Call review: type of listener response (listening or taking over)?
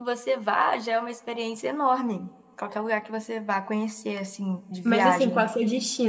taking over